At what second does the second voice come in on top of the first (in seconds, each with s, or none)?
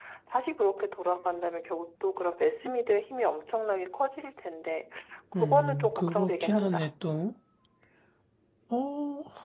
5.4 s